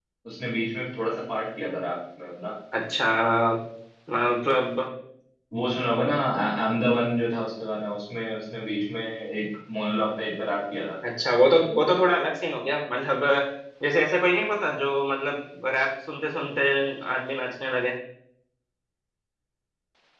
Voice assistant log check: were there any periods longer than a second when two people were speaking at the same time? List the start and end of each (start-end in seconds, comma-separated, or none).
none